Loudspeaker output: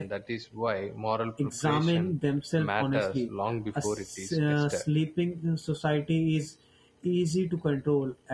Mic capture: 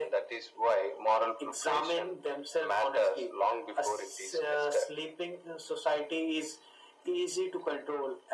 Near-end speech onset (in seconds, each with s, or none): none